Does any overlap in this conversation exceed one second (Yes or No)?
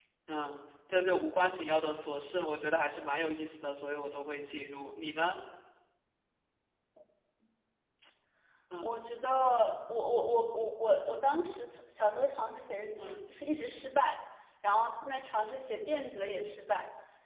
No